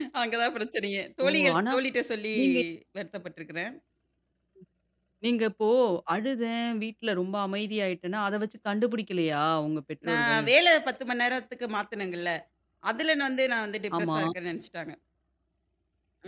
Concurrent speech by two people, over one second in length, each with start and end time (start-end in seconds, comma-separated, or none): none